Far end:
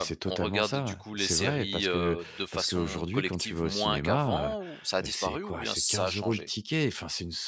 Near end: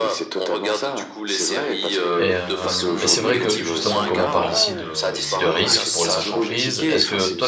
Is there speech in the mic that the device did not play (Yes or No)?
Yes